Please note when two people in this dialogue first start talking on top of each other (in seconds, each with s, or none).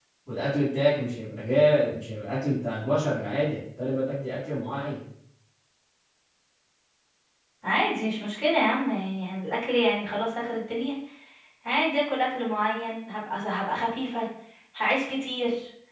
none